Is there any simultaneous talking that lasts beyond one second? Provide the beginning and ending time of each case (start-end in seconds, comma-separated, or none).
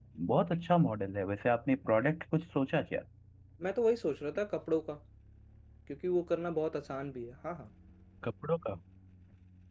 none